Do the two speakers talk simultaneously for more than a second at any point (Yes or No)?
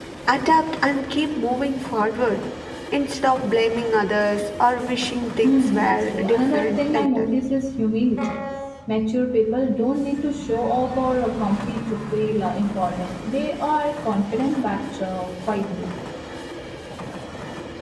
Yes